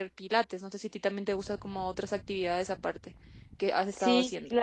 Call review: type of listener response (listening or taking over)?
taking over